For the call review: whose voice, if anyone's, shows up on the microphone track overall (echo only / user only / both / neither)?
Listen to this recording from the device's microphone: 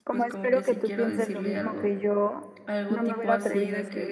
both